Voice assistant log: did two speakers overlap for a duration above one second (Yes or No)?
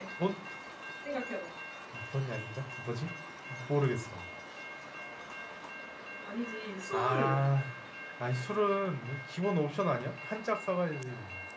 No